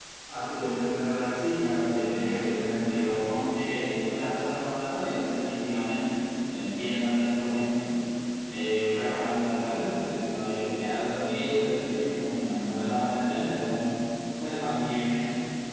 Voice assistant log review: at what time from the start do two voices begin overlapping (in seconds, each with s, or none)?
1.3 s